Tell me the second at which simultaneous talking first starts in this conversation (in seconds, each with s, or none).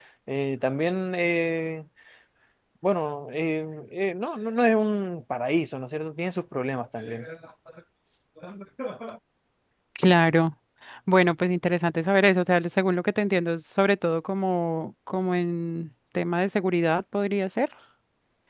none